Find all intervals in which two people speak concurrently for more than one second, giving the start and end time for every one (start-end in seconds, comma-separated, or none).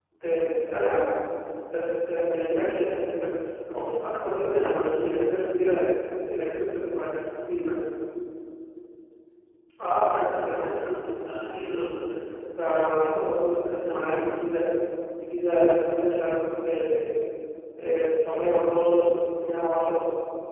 none